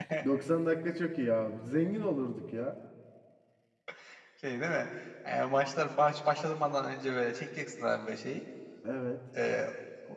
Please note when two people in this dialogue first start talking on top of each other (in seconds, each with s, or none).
none